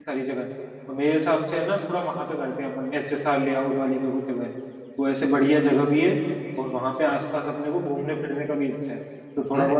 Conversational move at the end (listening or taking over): listening